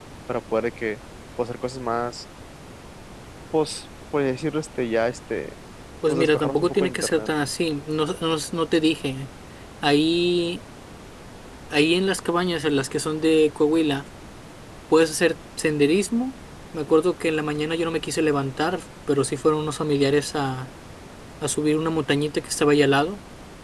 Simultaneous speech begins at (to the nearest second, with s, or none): 6 s